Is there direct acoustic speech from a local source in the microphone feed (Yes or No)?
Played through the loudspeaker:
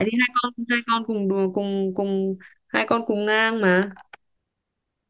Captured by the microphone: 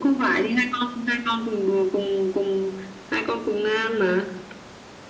No